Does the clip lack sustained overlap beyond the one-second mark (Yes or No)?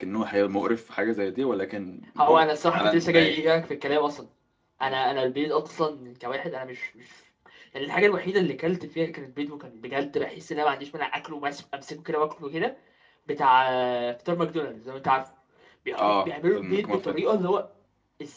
No